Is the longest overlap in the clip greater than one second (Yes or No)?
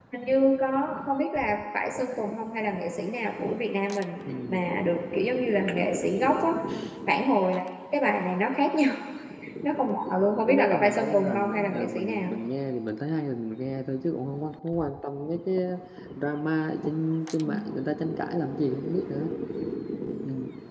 Yes